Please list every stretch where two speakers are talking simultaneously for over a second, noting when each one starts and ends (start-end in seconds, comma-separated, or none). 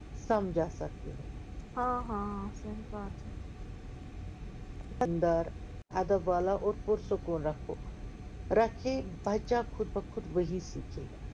none